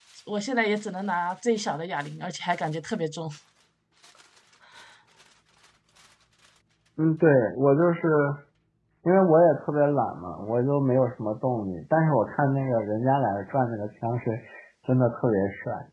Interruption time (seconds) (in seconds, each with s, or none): none